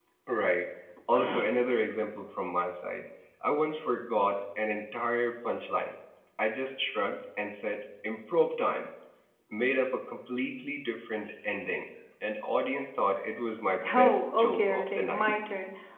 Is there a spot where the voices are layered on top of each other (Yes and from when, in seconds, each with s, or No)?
Yes, from 13.8 s